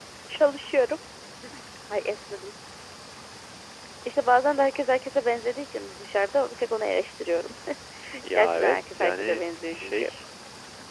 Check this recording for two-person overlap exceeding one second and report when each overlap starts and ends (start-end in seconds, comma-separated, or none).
8.3-10.1